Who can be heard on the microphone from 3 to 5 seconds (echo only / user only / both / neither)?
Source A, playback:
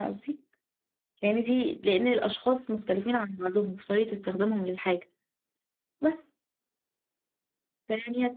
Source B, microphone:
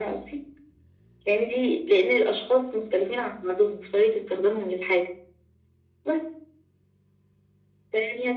echo only